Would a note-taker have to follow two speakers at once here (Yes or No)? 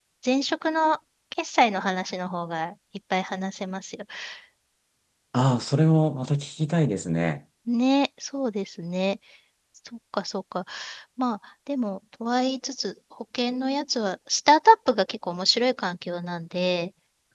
No